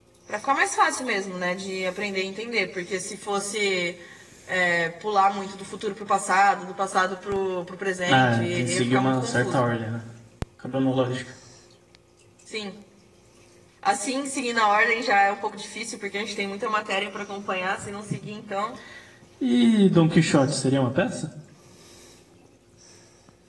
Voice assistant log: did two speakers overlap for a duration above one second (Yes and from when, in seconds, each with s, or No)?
Yes, from 8.1 s